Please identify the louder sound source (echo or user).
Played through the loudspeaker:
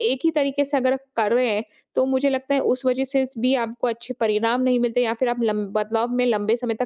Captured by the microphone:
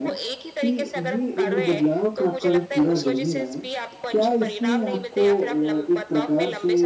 user